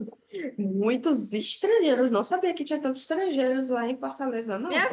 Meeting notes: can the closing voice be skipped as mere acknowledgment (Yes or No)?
No